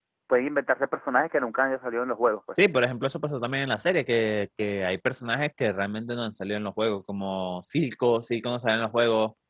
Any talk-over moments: No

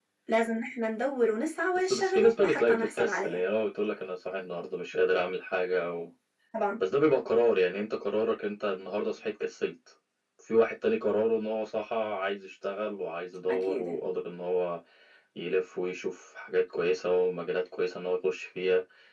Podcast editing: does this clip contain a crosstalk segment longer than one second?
Yes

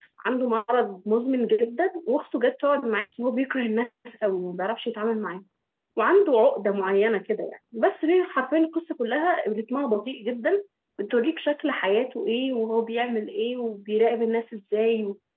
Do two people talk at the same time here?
No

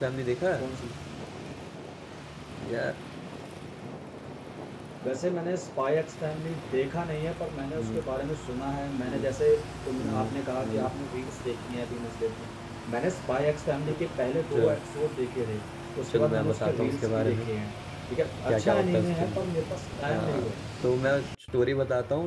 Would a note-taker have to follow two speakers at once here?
Yes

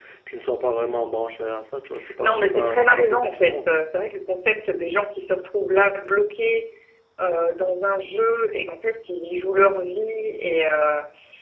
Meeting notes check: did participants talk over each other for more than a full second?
Yes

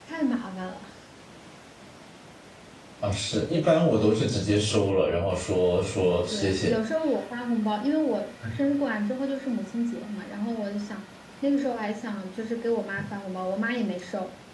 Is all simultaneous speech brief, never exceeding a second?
Yes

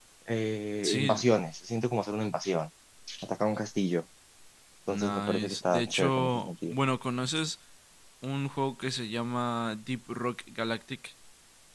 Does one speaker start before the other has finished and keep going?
Yes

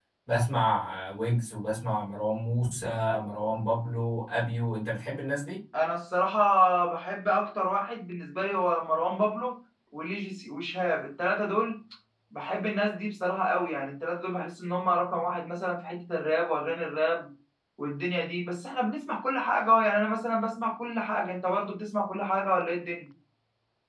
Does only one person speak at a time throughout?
Yes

